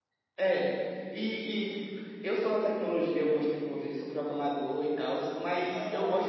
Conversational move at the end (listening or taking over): listening